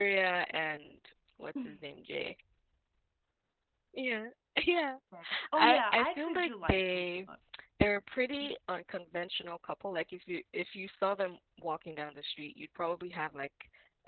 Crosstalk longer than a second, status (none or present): present